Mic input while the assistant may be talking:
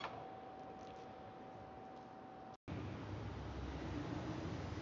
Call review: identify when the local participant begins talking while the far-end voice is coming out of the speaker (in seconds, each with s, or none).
none